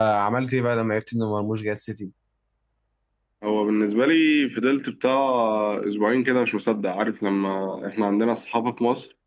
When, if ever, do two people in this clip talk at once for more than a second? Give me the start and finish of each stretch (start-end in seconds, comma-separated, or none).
none